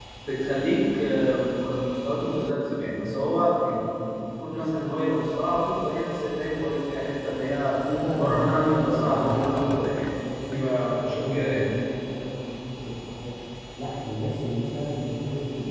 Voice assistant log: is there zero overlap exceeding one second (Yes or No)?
No